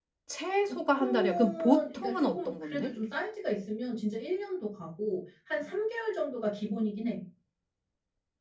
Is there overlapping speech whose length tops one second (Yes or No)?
Yes